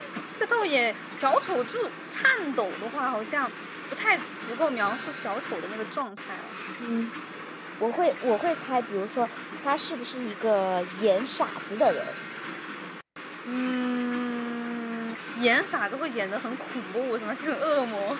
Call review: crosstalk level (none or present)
none